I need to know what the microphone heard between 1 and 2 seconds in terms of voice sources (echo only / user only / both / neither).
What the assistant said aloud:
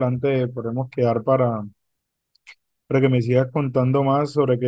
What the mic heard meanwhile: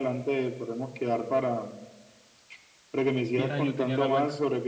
echo only